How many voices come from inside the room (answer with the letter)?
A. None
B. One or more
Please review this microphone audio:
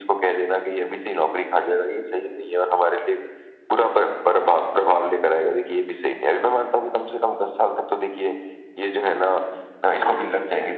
A